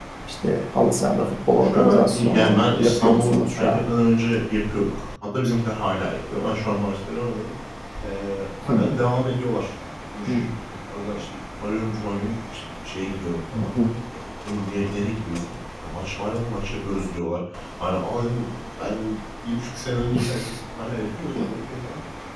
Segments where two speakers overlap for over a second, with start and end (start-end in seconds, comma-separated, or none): 1.6-3.8